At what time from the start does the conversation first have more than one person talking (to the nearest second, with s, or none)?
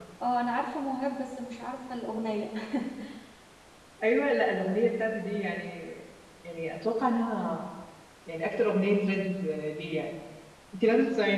none